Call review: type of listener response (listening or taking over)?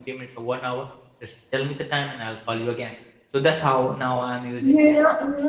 taking over